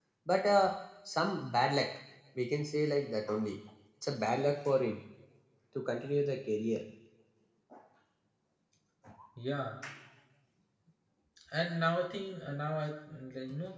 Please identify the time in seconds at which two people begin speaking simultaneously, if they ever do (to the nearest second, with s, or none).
none